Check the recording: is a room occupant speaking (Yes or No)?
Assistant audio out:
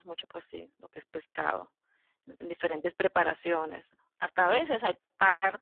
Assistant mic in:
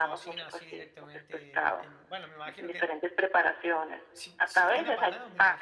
Yes